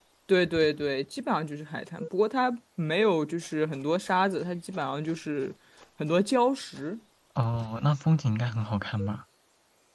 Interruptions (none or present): none